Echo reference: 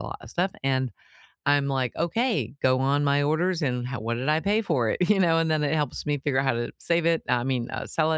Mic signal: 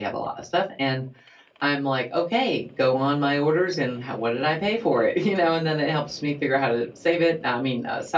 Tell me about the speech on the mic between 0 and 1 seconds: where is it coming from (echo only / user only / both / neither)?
echo only